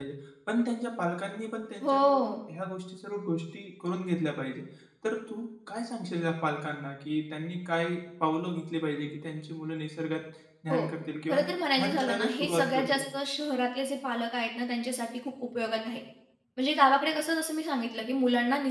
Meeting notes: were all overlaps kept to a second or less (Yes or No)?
No